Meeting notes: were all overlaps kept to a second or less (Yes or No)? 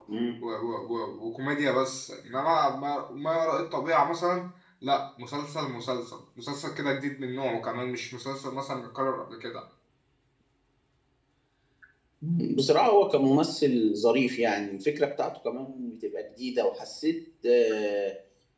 Yes